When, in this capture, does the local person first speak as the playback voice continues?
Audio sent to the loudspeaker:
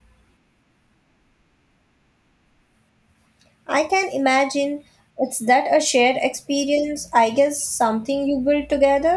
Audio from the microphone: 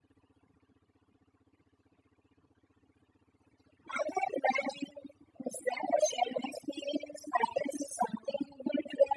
none

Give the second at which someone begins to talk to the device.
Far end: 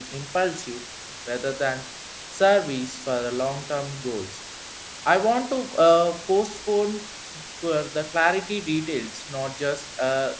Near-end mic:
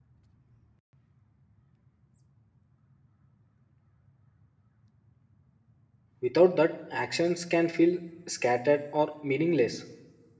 6.2 s

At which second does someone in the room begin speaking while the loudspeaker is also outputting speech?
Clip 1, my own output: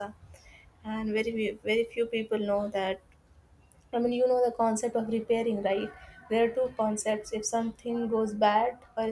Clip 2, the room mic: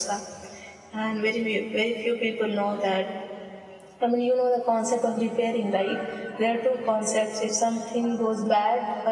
none

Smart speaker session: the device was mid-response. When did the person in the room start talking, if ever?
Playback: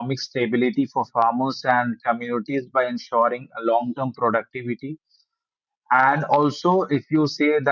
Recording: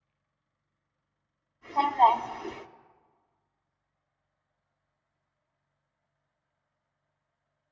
1.8 s

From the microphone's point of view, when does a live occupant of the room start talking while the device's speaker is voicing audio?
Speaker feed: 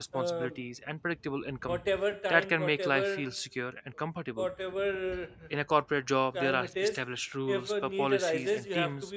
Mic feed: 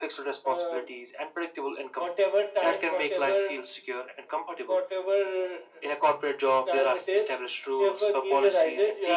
none

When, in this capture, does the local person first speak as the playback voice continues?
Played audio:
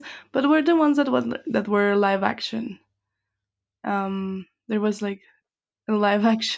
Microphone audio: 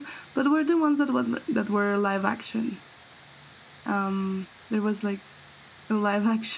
none

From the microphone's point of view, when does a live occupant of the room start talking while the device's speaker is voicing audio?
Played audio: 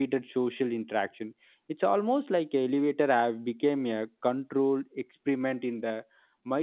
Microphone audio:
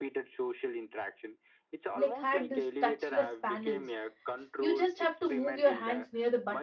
1.9 s

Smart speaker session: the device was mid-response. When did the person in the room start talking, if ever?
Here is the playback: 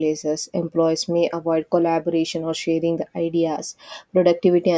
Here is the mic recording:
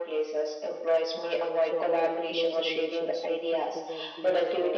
1.1 s

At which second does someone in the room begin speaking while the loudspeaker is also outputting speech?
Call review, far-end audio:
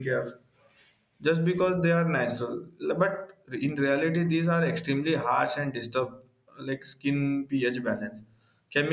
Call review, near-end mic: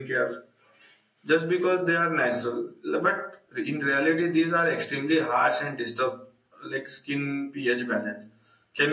none

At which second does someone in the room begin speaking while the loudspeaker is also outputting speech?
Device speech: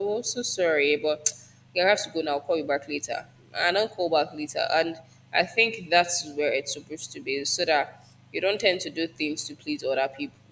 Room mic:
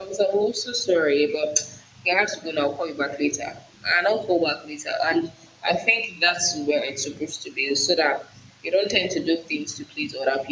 none

